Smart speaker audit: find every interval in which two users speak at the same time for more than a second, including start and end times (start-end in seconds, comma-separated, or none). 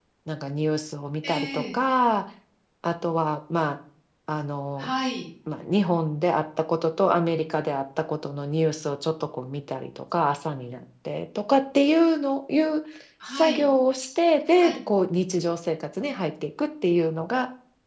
none